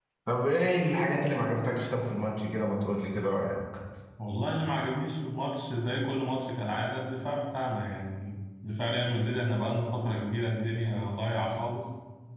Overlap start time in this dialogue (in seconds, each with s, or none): none